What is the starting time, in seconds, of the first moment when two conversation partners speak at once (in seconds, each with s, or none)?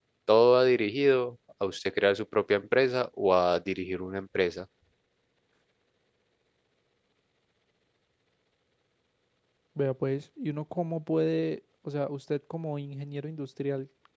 none